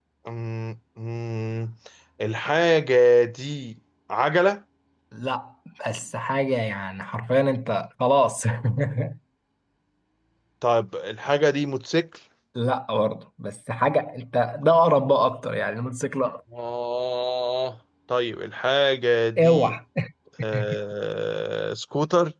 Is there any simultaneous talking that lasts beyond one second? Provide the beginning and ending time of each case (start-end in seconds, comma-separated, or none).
none